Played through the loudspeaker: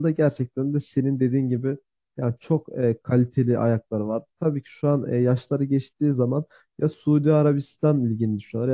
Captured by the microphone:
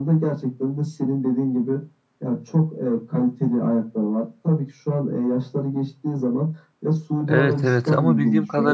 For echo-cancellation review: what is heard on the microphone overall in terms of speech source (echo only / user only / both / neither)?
both